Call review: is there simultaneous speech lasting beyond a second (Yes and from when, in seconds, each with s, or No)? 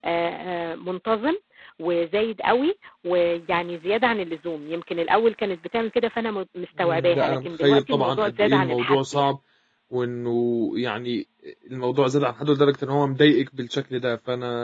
Yes, from 6.8 s